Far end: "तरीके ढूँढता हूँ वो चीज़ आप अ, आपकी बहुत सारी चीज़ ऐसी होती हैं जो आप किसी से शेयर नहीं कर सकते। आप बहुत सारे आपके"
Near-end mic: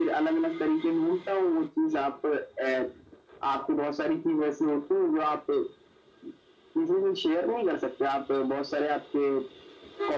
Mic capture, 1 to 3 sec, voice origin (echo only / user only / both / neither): echo only